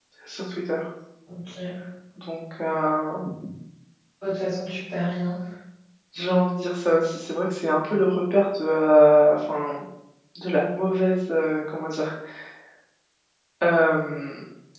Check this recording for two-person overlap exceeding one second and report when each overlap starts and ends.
none

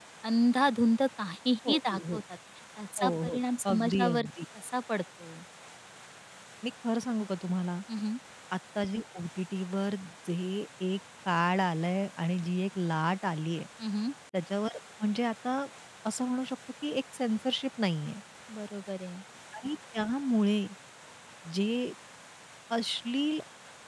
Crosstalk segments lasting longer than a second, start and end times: 3.0-4.3

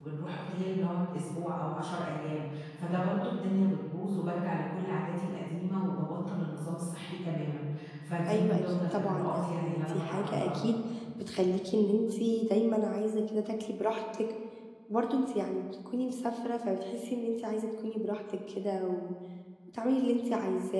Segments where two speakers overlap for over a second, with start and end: 8.3-10.5

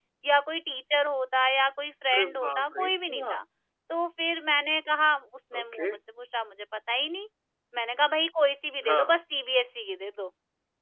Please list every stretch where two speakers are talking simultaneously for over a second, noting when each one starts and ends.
2.1-3.3

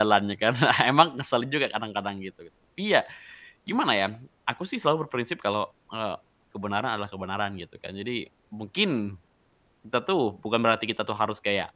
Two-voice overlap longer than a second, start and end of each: none

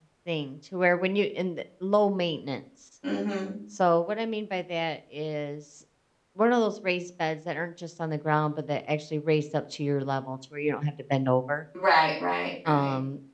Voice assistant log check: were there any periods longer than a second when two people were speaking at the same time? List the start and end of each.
none

